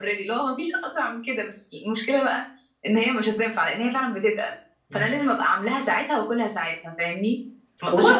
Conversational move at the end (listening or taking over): listening